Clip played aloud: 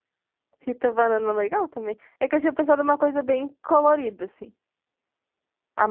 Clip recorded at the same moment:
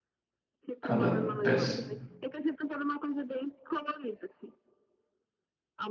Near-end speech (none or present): present